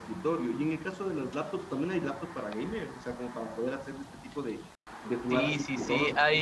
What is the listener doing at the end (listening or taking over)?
taking over